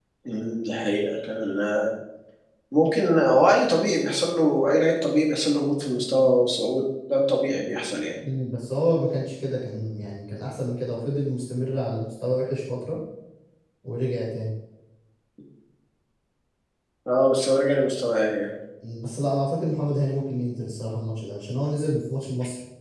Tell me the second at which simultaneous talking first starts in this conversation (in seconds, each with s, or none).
none